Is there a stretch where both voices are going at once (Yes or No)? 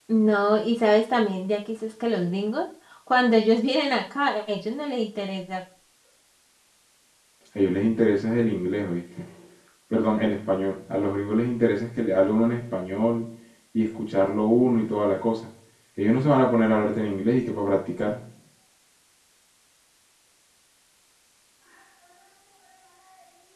No